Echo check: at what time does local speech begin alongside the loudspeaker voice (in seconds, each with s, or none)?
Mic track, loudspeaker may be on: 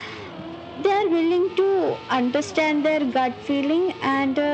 none